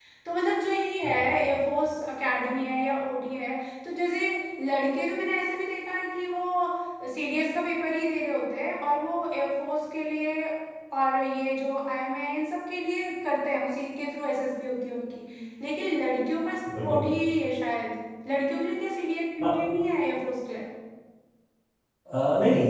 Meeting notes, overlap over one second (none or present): none